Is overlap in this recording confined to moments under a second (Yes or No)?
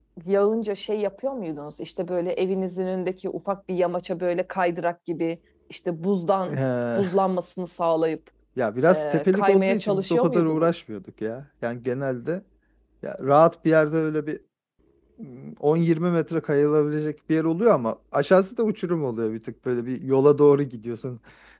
No